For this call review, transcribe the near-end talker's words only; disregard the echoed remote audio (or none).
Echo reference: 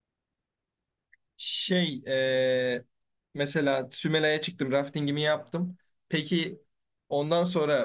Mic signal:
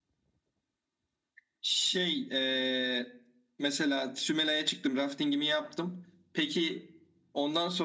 none